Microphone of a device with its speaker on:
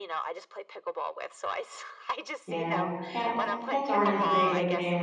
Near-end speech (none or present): present